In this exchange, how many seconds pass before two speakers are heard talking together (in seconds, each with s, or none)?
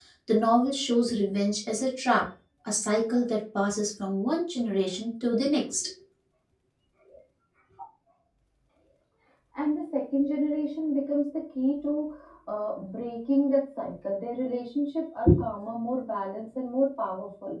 none